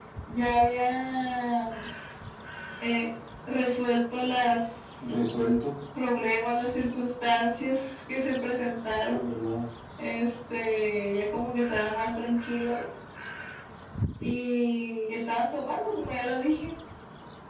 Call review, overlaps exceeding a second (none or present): none